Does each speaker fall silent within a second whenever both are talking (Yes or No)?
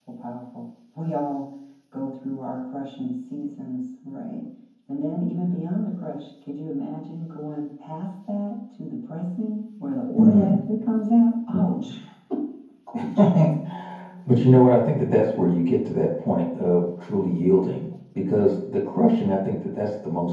Yes